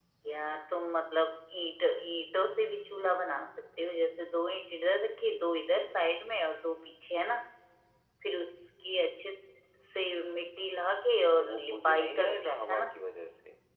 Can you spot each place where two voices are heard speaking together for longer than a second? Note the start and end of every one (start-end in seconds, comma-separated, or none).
11.4-12.9